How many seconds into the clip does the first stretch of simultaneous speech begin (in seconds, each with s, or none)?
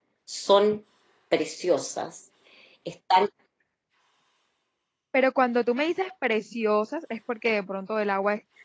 none